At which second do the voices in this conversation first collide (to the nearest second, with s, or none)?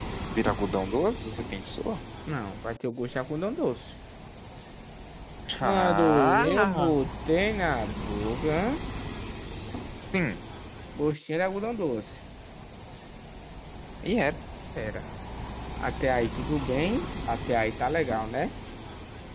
6 s